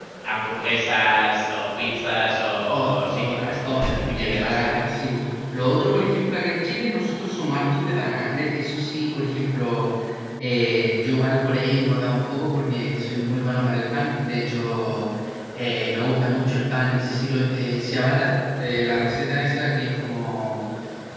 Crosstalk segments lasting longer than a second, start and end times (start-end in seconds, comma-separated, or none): 2.7-4.6